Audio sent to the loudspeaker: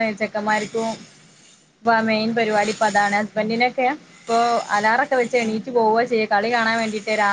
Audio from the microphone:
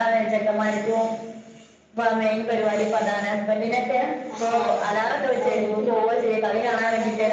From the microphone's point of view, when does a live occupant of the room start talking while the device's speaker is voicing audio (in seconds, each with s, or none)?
4.3 s